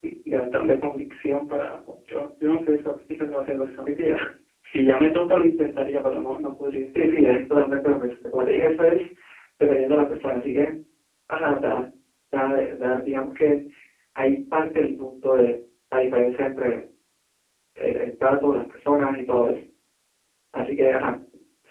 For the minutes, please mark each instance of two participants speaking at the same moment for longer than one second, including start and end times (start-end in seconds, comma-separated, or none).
none